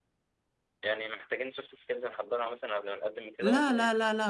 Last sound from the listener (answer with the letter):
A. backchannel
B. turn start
B